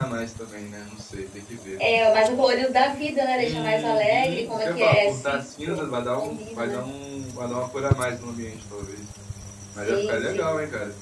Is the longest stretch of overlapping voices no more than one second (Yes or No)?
No